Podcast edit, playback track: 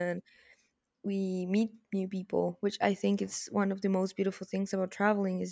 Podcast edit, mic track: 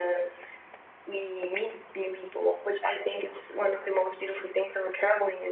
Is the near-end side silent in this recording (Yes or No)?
Yes